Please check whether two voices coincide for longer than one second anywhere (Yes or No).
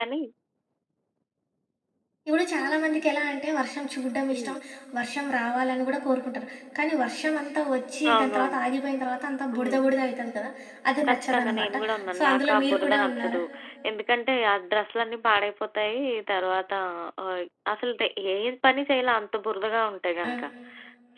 Yes